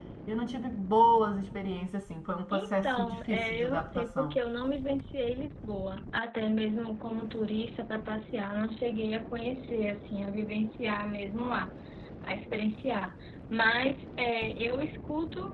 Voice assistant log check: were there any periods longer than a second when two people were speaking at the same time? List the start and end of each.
2.5-4.4

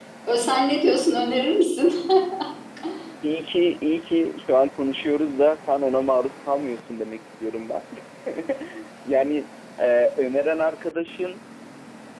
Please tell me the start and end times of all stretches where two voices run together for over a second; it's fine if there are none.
none

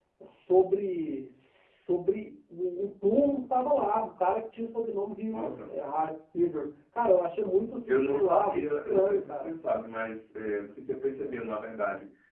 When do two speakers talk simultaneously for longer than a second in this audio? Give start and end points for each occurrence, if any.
7.9-9.5

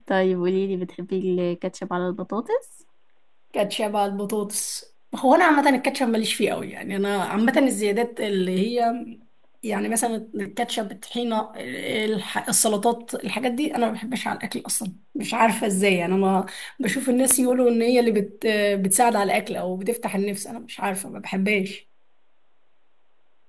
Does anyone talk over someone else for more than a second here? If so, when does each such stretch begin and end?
none

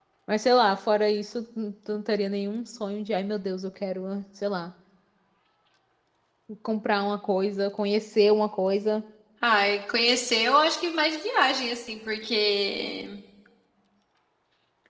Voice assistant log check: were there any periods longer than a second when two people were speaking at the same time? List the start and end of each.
none

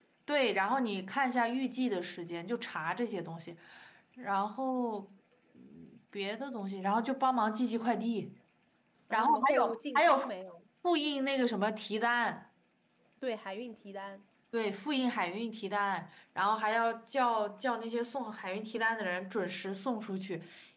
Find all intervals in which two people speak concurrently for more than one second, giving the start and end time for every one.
9.1-10.3

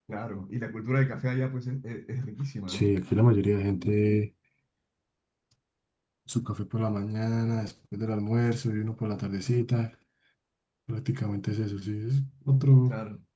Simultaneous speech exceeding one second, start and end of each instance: none

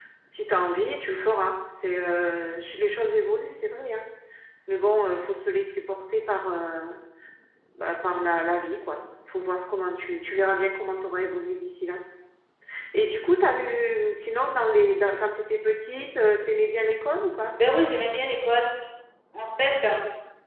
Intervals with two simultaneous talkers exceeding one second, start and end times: none

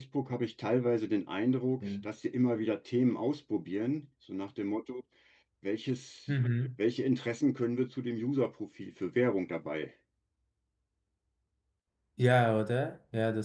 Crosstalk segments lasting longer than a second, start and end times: none

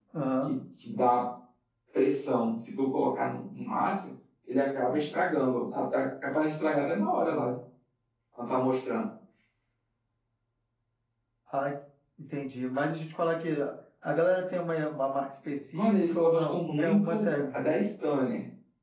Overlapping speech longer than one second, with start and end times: 15.8-17.3

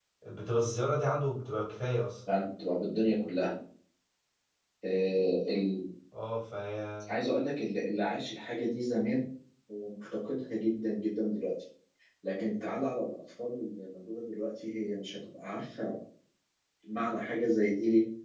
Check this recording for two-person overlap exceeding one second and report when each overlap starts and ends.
none

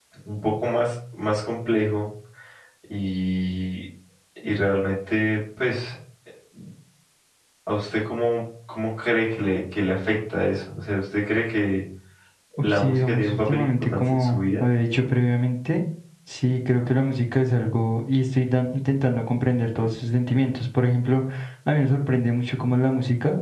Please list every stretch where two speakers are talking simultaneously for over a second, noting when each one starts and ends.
12.6-14.6

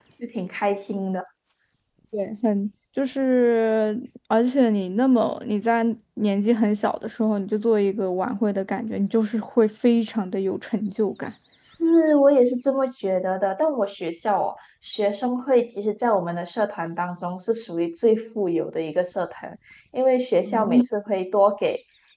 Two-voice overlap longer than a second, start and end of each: none

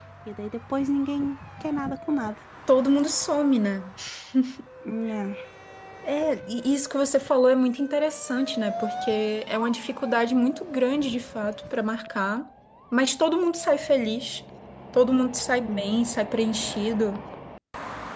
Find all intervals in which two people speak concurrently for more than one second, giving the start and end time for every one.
none

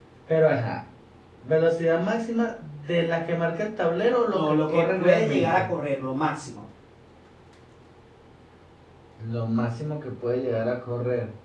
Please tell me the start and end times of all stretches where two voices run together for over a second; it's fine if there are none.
4.3-5.7

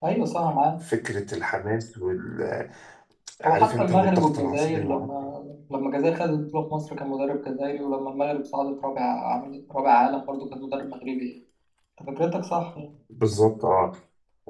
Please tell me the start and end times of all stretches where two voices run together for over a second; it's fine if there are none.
3.5-5.3

